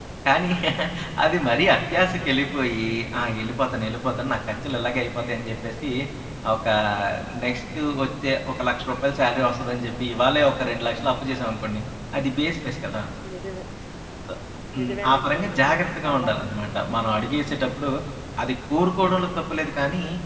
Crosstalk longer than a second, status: present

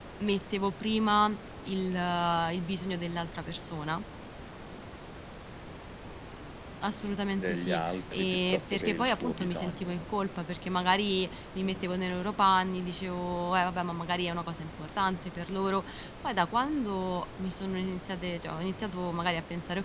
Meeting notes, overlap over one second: present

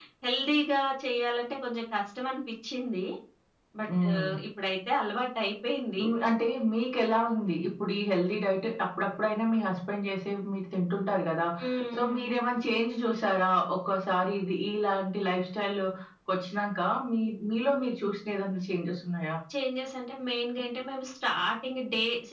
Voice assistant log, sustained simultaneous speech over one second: none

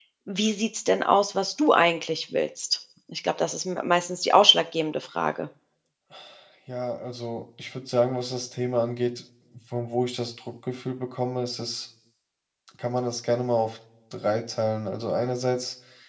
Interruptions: none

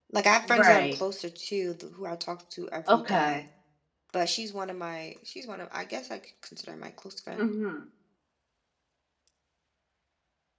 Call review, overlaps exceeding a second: none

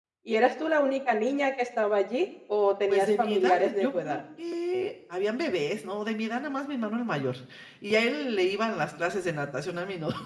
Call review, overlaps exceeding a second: present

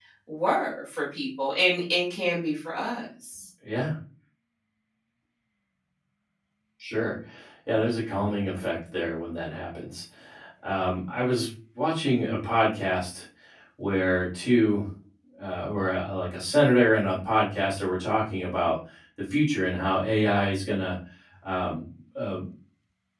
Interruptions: none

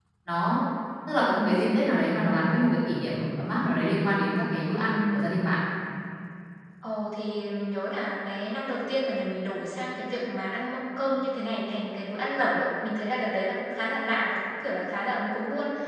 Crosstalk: none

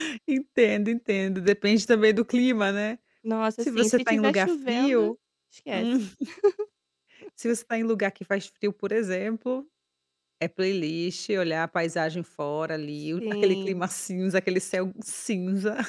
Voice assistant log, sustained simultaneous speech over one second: present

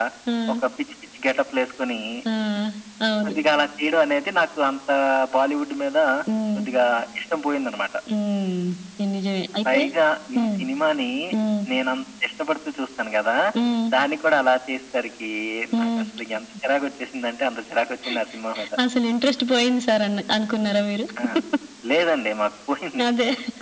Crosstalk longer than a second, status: none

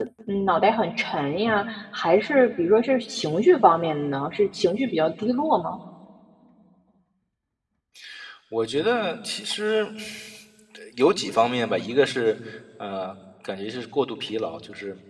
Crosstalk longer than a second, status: none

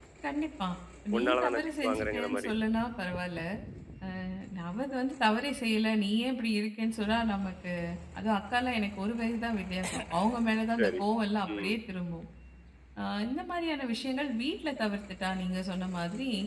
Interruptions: present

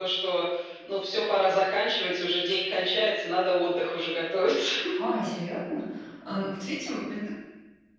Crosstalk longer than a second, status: none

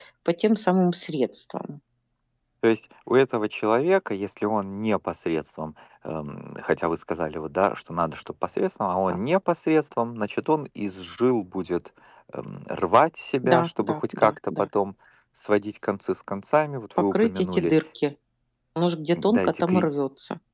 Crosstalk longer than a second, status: present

